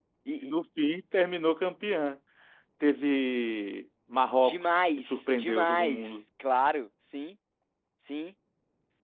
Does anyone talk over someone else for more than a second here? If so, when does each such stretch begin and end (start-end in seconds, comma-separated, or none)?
4.4-6.2